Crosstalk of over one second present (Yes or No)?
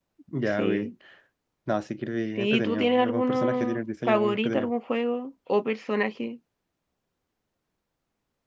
Yes